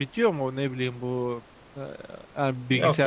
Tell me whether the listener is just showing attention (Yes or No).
No